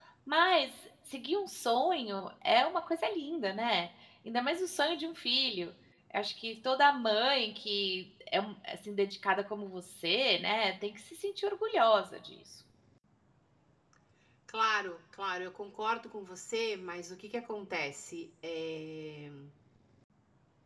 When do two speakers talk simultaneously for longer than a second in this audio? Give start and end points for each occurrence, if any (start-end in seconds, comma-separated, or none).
none